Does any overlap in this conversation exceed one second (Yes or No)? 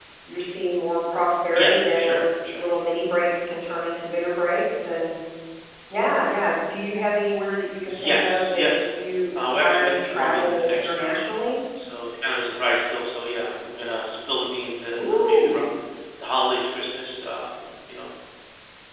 Yes